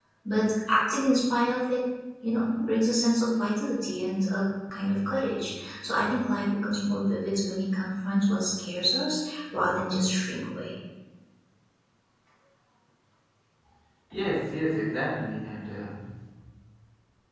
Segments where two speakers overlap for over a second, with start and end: none

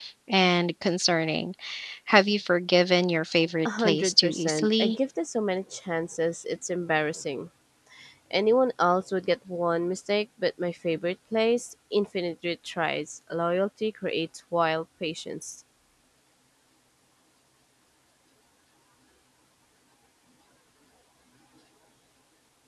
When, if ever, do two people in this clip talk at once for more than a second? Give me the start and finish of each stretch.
3.6-5.0

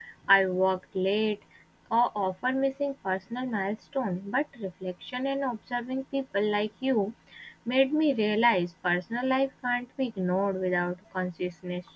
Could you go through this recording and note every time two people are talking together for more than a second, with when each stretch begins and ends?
none

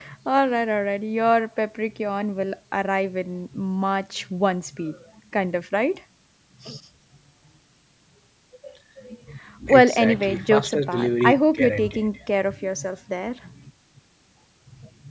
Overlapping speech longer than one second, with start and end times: 9.7-12.1

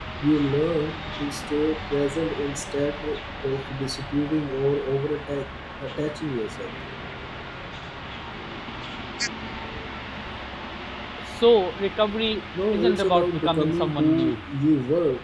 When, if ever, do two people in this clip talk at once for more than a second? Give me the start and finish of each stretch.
12.7-14.4

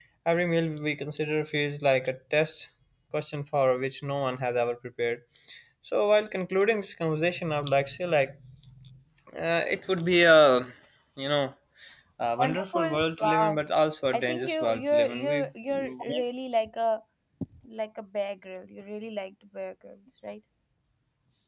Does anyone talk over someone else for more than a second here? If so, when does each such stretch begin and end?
12.4-13.6, 14.1-16.2

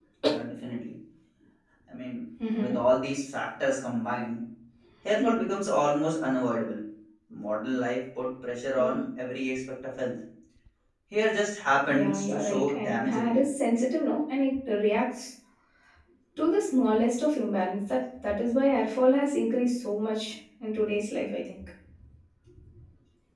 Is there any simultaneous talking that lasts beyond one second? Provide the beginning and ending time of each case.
11.9-13.4

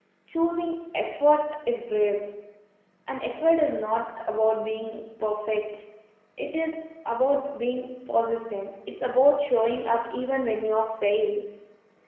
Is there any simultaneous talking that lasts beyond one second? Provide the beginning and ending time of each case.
none

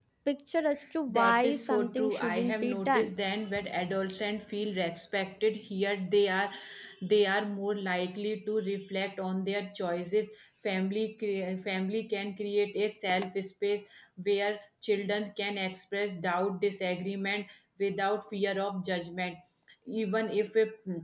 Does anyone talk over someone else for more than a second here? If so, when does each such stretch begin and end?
1.1-3.1

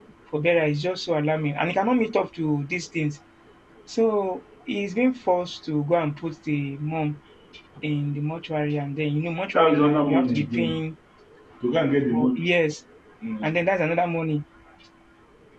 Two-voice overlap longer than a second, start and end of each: 9.5-10.8

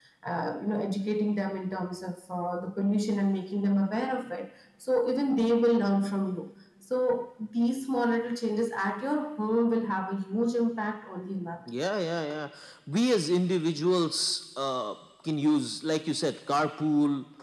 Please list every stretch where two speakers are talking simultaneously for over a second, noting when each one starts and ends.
none

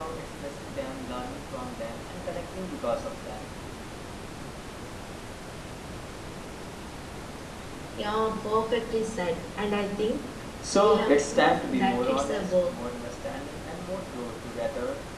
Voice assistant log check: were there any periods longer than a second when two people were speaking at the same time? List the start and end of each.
10.8-12.7

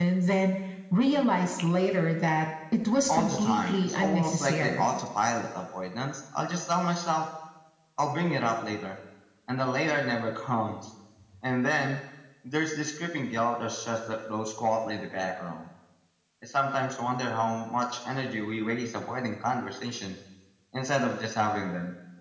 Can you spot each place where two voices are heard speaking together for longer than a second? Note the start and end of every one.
3.1-5.0

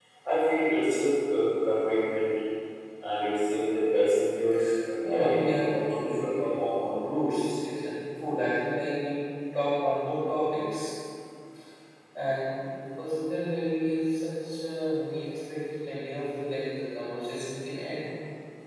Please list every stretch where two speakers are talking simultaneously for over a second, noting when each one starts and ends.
5.1-6.9

